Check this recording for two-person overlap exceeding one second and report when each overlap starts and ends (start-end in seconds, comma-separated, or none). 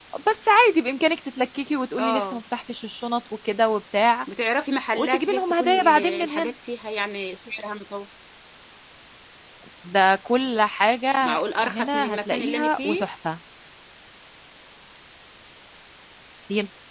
5.0-6.5, 11.2-13.1